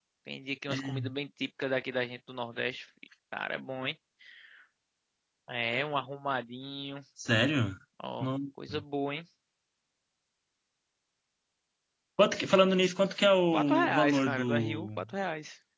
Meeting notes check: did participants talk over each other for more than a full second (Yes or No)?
Yes